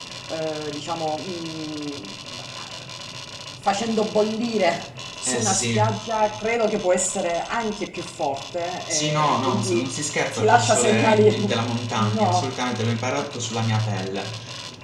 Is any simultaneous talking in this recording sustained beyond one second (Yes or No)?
Yes